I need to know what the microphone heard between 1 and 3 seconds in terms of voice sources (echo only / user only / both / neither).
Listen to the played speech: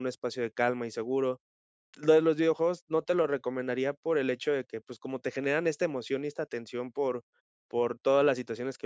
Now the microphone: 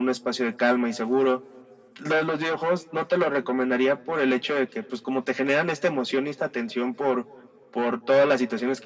echo only